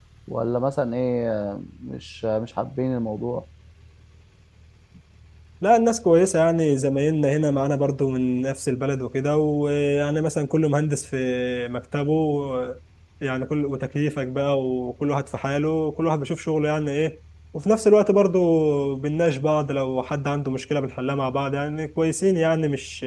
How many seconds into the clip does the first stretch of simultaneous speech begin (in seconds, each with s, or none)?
none